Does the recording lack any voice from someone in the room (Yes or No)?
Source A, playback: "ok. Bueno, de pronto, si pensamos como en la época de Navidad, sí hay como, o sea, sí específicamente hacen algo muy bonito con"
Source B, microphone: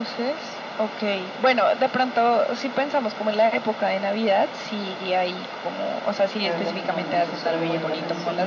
No